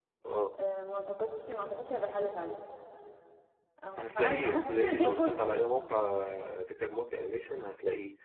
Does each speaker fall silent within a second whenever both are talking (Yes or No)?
No